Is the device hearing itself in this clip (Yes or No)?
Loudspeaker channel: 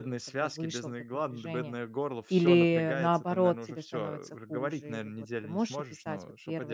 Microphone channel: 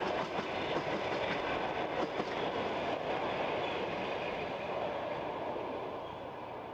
No